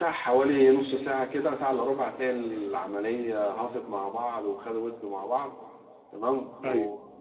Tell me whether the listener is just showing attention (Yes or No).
Yes